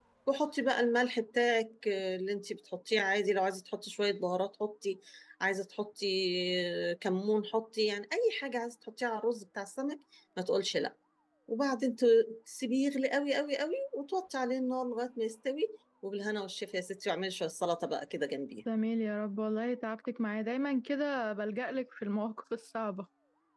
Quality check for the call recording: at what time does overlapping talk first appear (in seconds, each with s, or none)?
none